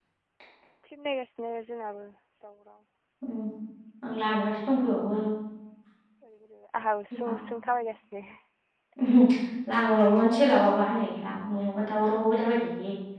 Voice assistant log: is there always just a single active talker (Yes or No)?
Yes